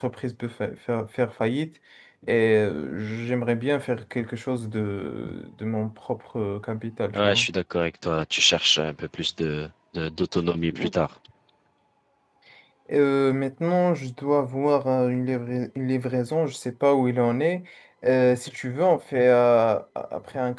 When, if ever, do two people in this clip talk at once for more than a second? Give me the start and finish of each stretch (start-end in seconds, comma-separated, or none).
none